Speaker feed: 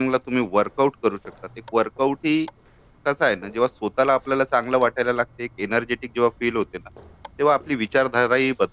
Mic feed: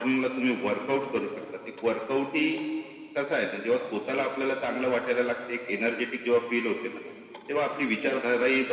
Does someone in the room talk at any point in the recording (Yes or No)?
No